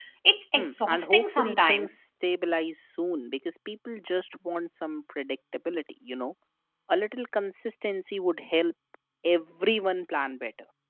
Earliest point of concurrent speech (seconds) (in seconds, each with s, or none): 0.6 s